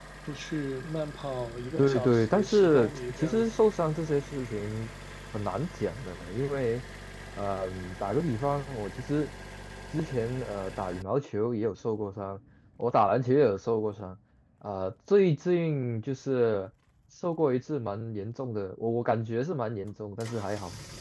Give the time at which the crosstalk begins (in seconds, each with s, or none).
1.8 s